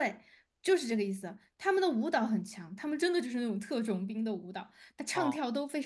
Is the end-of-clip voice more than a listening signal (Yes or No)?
No